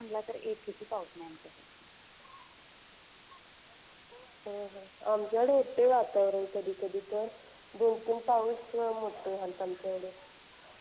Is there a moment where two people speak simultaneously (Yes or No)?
No